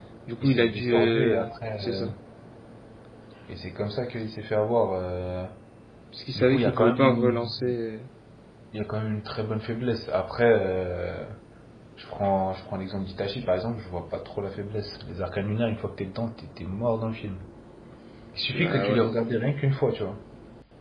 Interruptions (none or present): present